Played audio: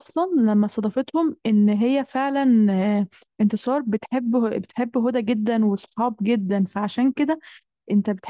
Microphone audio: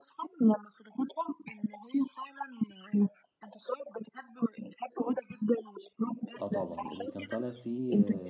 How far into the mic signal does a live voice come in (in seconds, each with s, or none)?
6.4 s